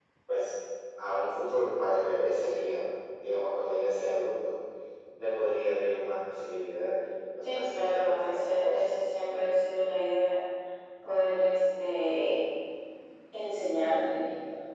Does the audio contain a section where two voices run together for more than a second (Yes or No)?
Yes